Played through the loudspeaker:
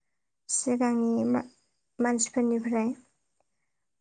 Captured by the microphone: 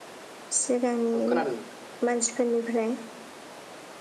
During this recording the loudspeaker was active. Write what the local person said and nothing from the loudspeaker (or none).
औ खोनादों नोंथां खोनादों।